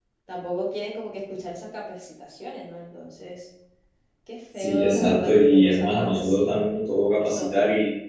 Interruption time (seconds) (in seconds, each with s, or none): 4.6 s